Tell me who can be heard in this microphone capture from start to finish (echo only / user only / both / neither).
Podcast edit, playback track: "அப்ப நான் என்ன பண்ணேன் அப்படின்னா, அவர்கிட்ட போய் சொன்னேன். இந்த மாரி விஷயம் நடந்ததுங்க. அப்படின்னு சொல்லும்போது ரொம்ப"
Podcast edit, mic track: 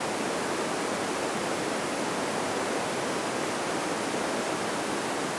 neither